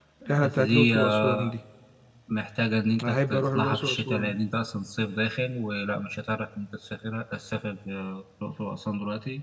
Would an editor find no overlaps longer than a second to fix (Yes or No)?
No